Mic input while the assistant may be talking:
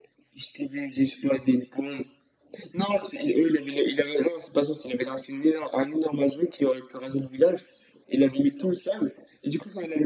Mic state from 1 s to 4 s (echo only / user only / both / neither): echo only